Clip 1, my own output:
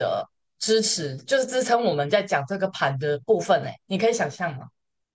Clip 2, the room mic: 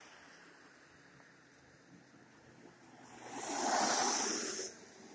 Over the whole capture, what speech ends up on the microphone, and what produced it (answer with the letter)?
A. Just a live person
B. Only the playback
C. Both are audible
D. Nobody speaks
D